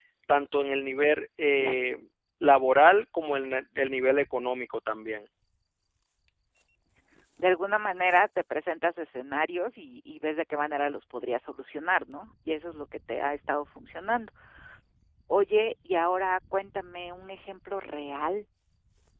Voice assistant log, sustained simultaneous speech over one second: none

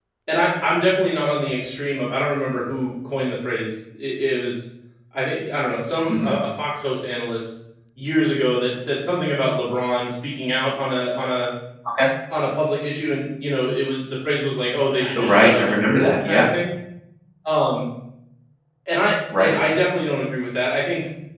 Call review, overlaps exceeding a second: present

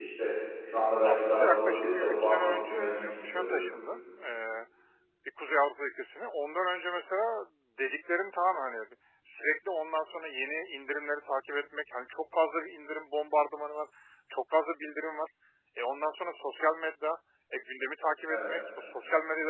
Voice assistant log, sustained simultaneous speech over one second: present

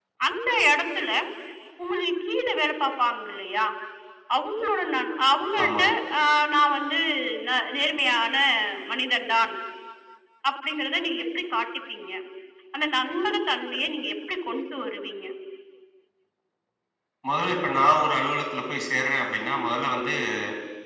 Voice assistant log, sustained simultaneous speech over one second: none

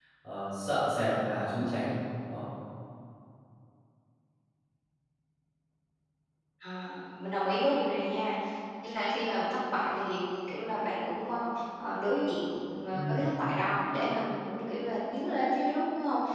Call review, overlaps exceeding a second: none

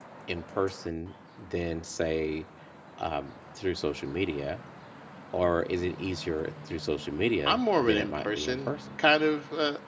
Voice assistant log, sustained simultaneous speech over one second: present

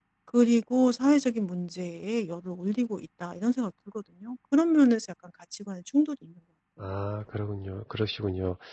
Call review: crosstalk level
none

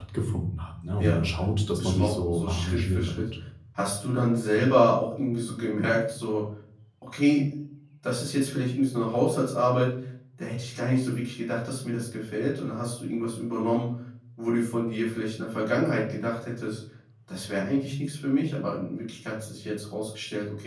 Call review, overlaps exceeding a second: present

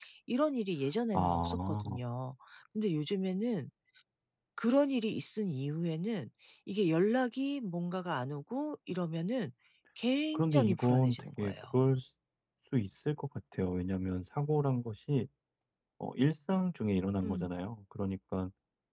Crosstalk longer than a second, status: present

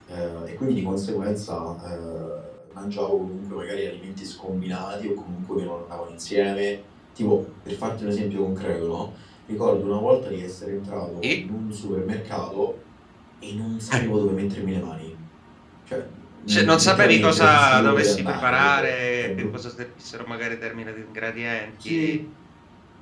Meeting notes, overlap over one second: present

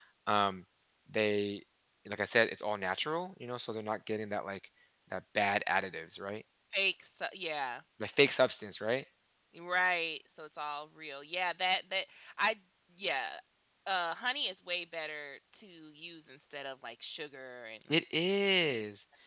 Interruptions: none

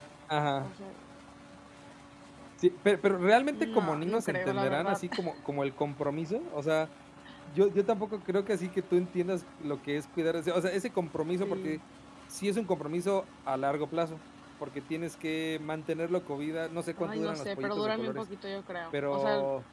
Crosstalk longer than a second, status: present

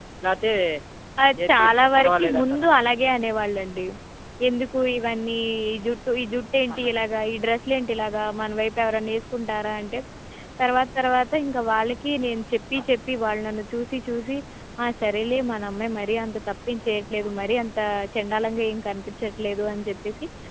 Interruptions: present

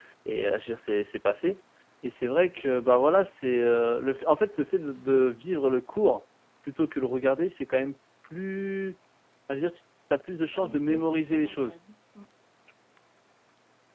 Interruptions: present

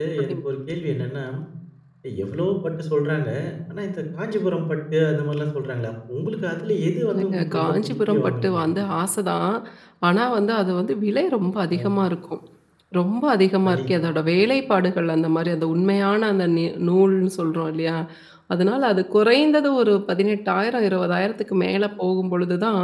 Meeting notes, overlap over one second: present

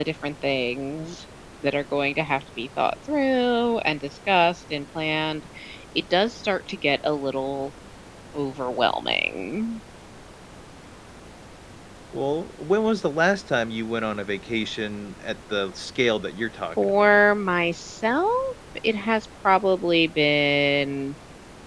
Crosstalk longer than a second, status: none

